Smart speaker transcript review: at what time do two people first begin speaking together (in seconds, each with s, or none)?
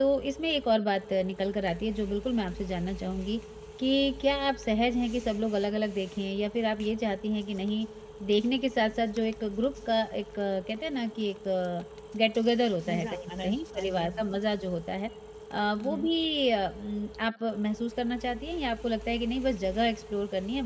12.9 s